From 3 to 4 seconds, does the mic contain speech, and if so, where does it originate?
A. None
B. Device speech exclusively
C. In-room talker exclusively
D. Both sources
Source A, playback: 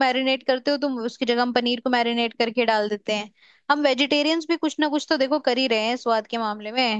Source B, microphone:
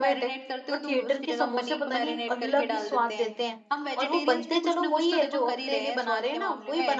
D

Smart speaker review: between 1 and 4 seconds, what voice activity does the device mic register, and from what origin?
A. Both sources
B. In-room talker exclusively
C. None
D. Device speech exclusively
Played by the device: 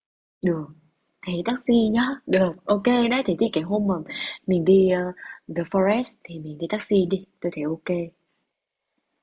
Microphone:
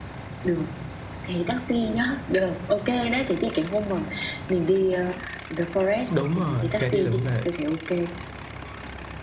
D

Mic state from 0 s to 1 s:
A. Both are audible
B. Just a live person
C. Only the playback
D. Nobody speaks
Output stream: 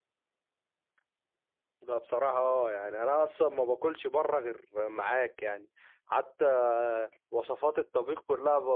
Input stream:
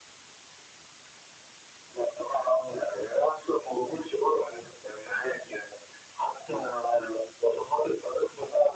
D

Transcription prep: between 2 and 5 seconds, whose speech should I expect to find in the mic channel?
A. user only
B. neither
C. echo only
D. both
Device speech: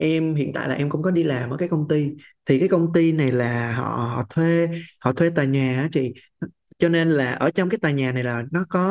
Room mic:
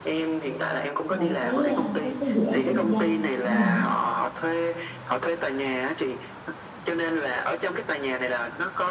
D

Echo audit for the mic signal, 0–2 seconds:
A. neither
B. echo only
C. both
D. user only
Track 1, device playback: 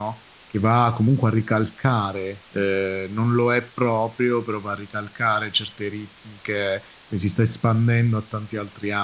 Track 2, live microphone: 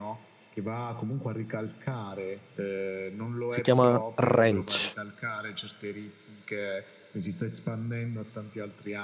B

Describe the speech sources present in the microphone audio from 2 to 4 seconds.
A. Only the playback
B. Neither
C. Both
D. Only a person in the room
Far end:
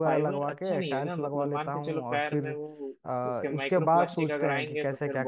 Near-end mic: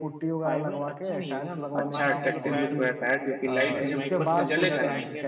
C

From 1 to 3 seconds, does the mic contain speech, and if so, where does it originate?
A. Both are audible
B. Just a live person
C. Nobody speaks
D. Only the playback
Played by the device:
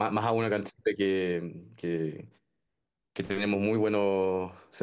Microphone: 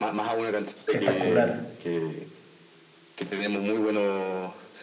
A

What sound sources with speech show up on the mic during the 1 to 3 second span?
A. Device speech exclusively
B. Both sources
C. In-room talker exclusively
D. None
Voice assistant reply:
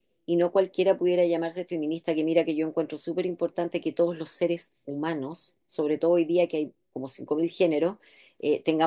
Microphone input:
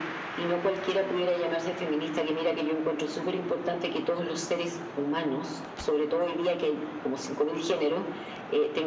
A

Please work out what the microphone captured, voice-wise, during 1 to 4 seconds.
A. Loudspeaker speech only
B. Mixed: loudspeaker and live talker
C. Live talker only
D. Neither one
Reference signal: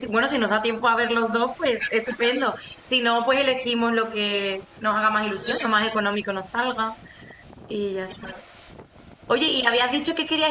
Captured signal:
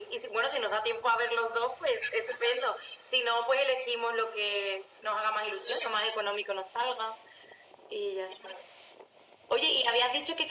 A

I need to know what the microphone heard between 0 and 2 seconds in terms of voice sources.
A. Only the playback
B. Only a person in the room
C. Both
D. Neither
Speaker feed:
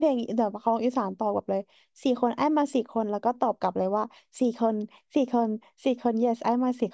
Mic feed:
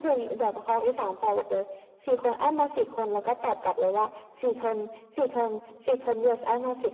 A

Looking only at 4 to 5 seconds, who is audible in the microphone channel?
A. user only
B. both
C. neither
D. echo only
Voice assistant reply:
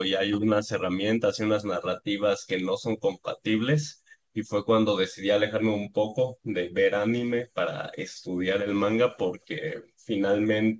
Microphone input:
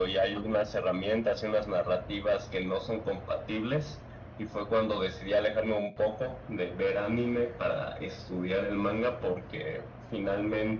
D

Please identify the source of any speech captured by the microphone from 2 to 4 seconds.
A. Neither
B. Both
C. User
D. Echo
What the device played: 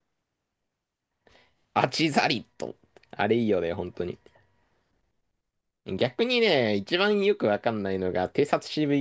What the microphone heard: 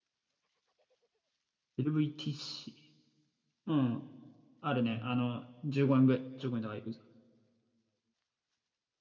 C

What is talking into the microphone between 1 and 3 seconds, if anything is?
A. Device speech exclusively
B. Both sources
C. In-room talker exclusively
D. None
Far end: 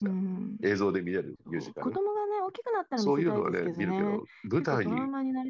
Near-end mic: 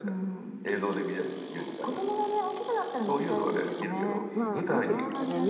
A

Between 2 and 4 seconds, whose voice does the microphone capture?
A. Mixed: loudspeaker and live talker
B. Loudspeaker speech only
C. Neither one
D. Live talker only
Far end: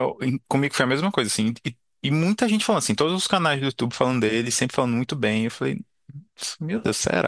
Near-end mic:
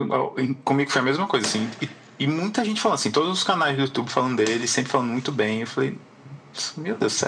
B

